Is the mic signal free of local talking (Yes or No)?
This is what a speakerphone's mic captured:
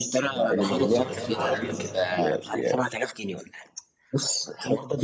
No